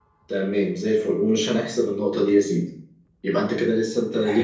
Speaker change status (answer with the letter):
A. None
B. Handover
A